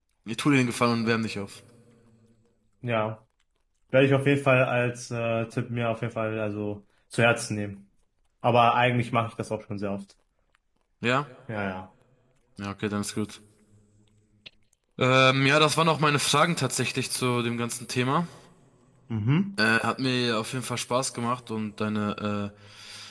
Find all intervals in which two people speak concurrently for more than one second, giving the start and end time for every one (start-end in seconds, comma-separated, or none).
none